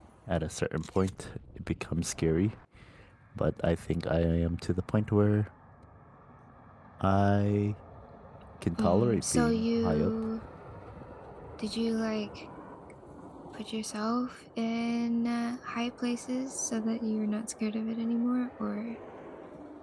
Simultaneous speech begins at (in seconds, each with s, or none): 8.8 s